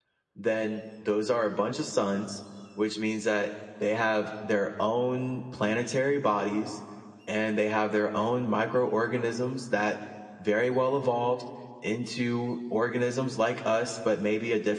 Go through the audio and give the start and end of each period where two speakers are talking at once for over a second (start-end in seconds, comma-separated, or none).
none